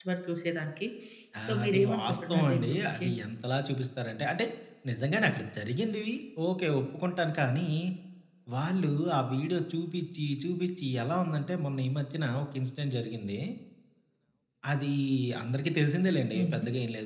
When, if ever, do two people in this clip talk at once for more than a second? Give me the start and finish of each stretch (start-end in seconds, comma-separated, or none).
1.5-3.1